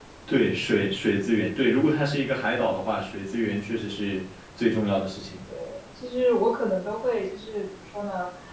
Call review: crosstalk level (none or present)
none